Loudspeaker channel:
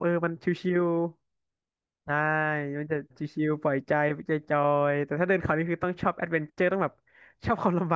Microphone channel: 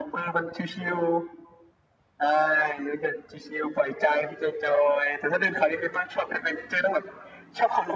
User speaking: No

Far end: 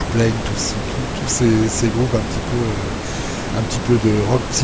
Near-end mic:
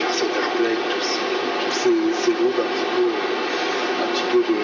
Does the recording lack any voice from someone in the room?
Yes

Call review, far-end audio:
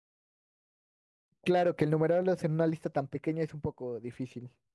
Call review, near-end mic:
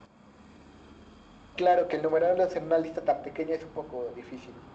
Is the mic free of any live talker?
Yes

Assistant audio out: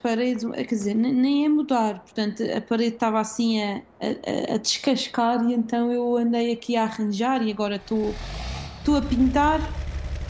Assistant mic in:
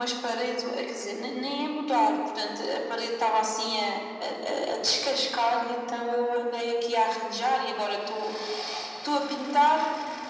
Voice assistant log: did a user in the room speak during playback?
No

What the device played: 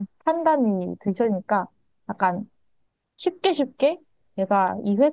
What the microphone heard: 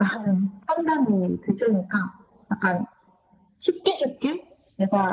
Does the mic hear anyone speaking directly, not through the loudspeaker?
No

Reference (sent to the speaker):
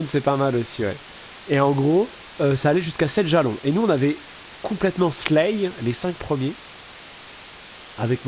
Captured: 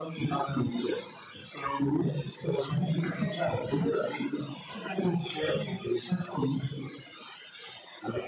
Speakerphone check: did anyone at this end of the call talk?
No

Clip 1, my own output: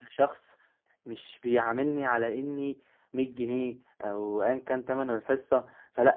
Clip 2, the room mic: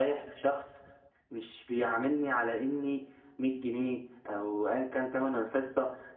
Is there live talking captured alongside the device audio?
No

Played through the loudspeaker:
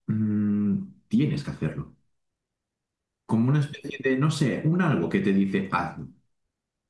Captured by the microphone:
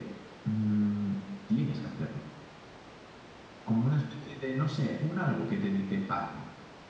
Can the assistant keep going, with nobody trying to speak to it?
Yes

